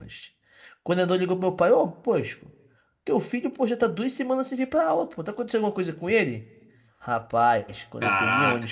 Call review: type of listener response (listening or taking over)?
listening